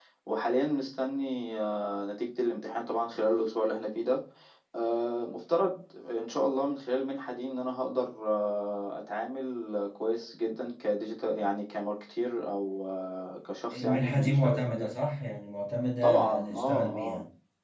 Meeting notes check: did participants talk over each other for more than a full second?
Yes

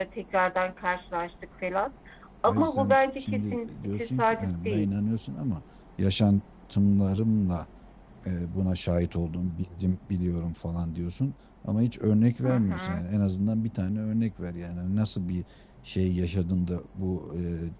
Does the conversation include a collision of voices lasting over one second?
Yes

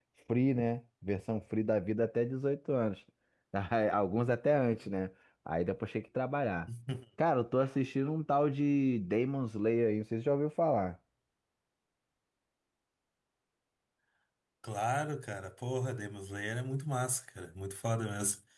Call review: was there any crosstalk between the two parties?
No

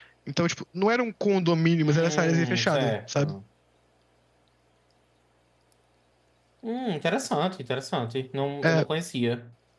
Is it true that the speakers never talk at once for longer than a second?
No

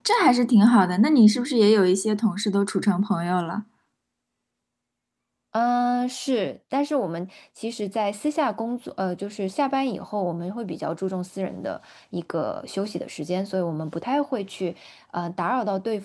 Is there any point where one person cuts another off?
No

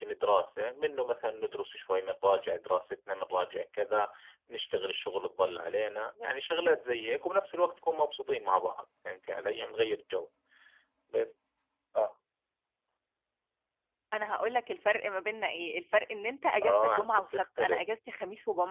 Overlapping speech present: Yes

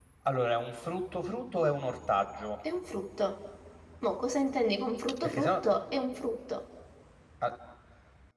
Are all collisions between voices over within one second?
Yes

